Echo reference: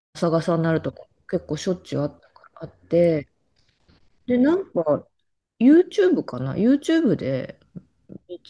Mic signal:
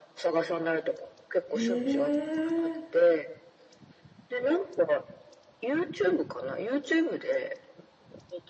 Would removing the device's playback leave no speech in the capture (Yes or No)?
No